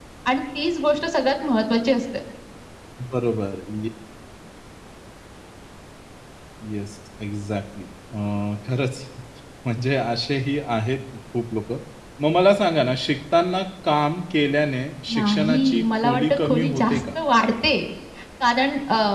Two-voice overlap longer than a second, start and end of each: 15.1-17.0

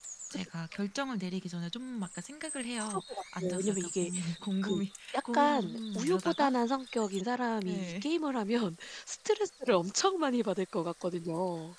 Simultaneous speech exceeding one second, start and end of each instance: 2.8-4.1, 5.1-6.5

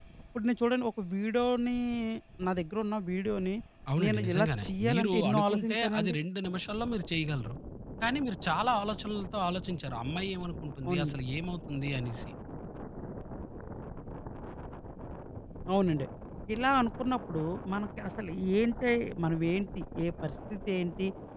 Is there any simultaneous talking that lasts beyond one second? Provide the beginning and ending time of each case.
4.0-6.1

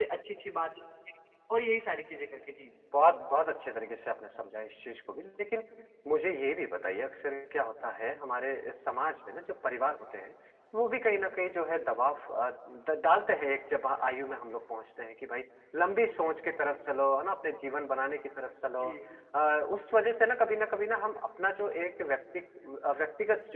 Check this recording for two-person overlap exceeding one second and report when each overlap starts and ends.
none

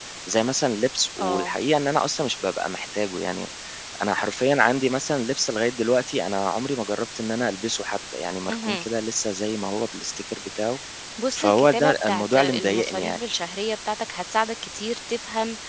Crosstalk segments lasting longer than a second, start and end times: 11.3-13.2

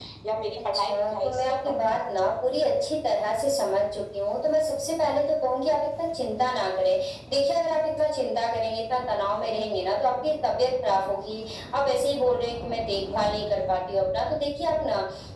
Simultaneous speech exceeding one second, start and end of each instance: 0.7-2.6

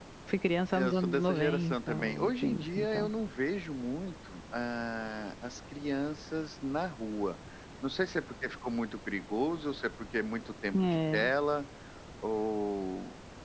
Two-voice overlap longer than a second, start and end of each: 0.7-3.1

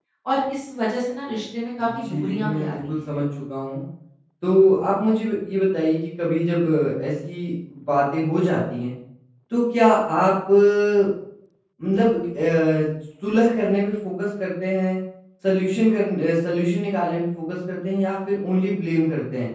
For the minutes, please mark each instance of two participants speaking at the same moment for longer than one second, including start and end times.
1.8-3.1

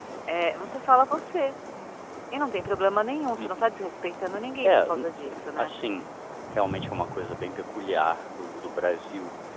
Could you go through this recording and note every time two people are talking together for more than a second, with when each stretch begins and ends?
none

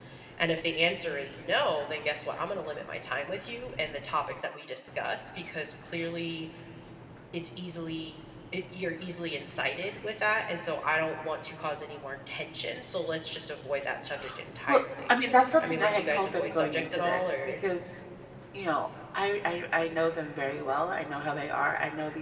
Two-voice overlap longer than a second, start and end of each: 15.6-17.5

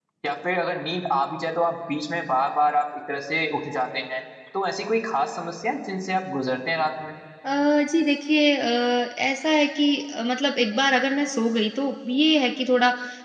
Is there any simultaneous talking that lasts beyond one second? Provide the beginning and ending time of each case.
none

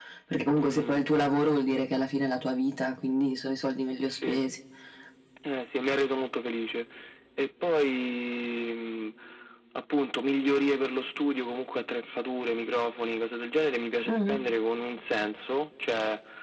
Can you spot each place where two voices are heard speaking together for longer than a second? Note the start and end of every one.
none

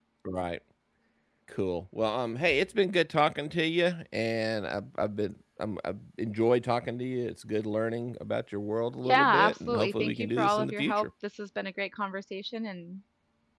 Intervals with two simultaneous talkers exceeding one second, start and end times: 9.0-11.1

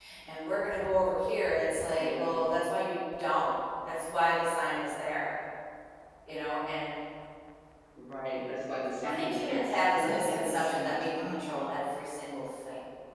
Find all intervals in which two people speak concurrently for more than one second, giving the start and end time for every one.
9.0-11.5

